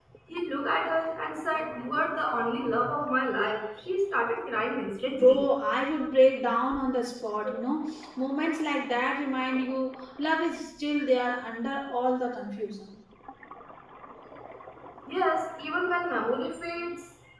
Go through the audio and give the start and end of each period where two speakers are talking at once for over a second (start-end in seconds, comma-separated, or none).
none